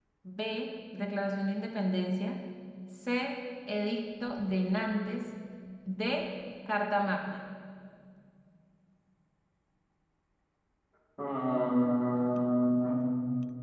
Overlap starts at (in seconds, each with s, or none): none